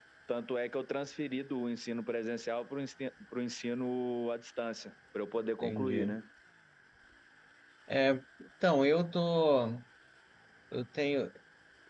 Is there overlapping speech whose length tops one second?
No

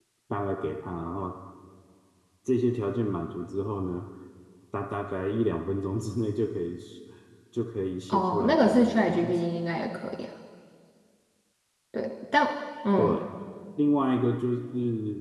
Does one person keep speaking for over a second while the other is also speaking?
Yes, from 8.1 s

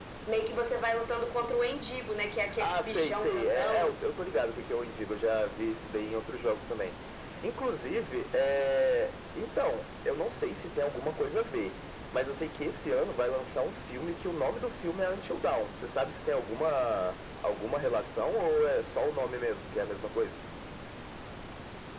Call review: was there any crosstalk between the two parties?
Yes, from 2.6 s

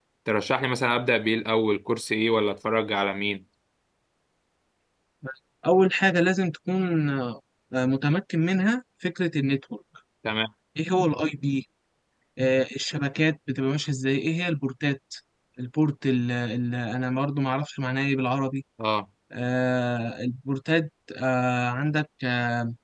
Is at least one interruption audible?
No

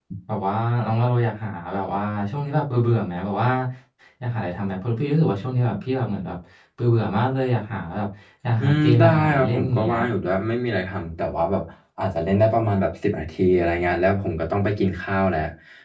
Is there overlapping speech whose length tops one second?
Yes, from 8.6 s

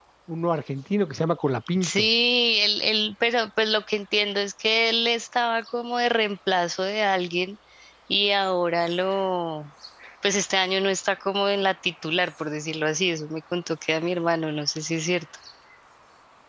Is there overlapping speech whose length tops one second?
No

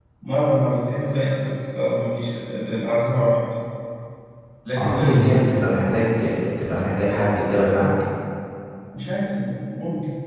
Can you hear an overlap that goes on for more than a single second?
No

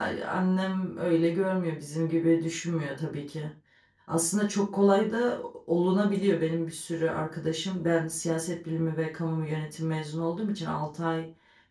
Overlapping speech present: No

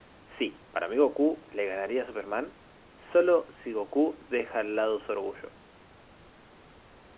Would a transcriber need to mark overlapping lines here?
No

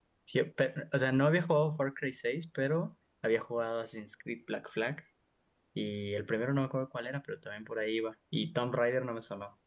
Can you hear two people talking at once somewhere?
No

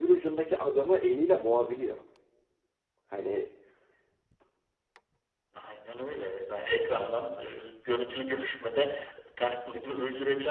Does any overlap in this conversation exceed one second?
No

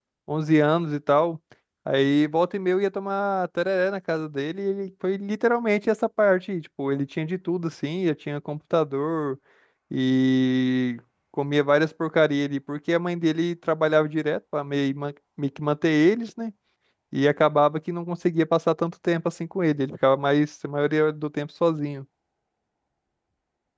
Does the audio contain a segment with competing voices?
No

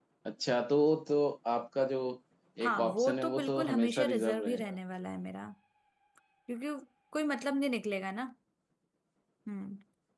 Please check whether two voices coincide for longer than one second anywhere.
Yes, from 2.7 s

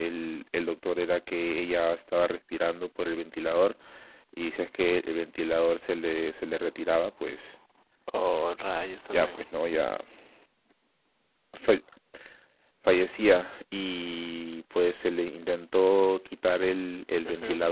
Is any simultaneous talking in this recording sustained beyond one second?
No

